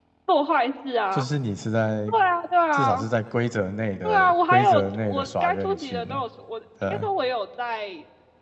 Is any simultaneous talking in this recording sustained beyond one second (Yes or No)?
Yes